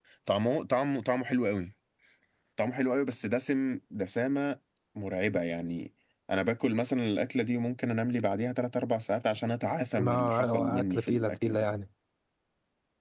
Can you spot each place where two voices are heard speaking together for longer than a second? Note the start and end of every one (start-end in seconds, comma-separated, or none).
10.0-11.7